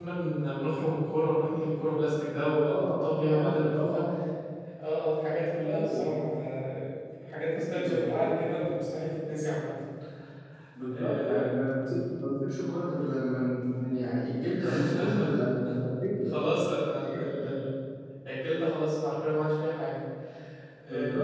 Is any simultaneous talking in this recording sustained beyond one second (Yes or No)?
Yes